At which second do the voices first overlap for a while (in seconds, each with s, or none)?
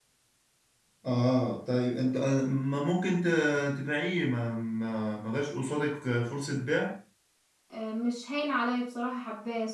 none